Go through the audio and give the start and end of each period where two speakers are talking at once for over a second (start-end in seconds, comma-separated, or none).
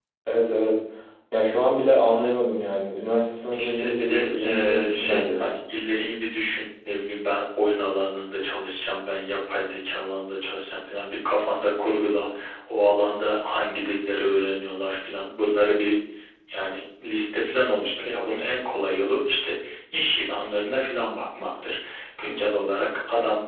3.5-5.5